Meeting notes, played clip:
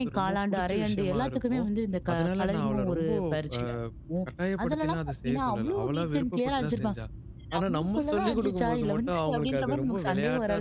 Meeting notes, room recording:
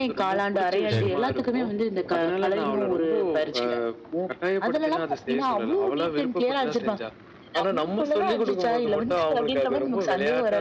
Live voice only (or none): சரி, சரி.